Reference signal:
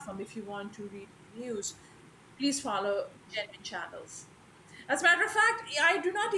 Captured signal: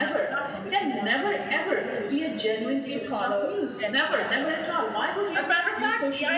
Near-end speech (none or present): present